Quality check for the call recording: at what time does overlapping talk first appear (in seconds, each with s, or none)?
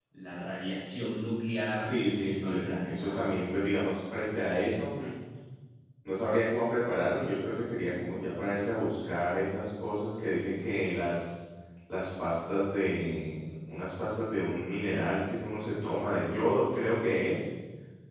1.8 s